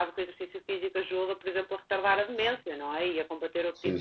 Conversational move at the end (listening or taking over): taking over